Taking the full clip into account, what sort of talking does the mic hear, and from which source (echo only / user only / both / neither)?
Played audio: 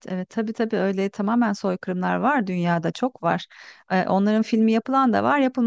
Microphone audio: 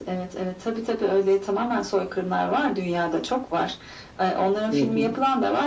both